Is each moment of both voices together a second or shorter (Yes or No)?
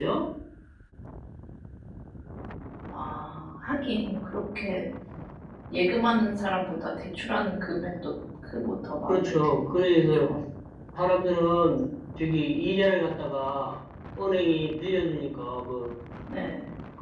No